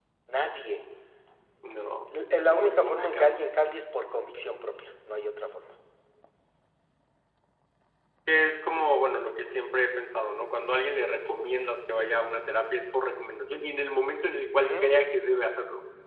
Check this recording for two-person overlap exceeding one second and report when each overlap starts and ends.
2.1-3.4

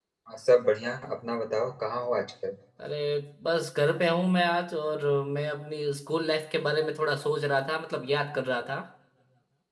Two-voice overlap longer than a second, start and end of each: none

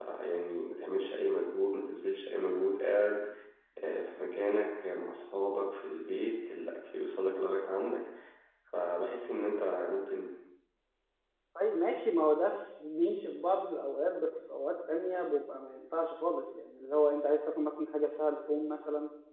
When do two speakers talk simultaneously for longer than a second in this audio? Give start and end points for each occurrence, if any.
none

